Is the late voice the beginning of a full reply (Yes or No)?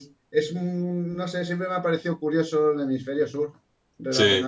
No